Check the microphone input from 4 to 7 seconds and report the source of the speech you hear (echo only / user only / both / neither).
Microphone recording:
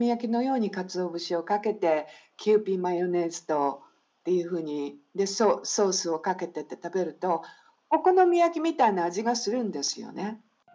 echo only